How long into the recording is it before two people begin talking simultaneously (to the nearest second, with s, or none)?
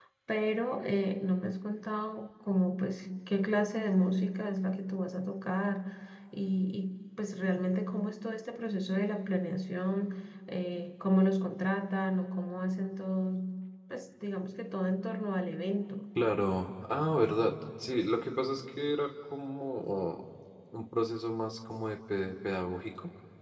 none